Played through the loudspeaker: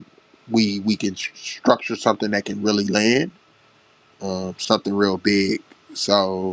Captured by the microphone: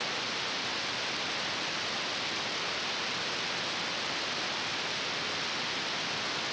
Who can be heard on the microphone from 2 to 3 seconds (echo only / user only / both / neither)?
neither